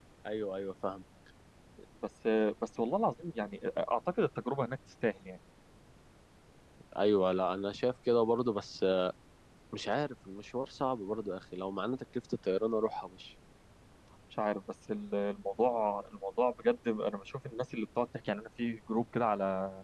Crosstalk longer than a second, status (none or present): none